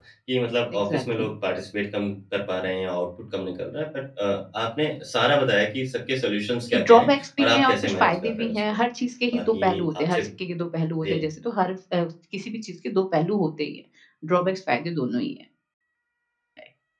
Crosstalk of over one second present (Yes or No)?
Yes